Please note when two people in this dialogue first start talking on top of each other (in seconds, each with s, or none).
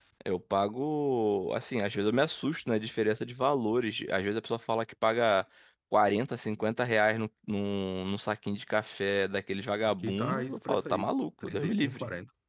9.8 s